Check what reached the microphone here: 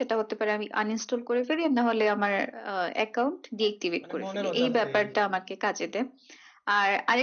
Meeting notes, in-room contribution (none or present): present